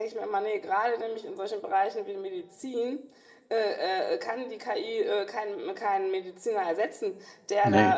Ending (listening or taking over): listening